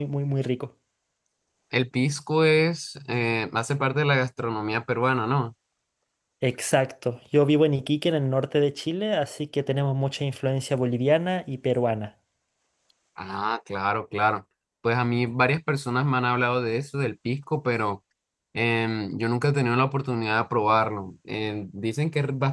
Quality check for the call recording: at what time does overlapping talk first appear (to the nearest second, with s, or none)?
none